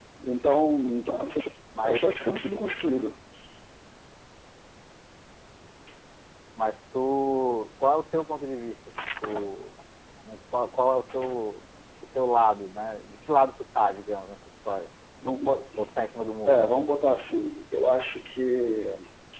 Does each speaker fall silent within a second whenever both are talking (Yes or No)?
Yes